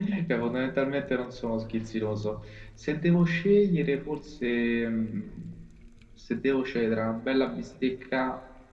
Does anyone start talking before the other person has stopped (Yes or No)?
No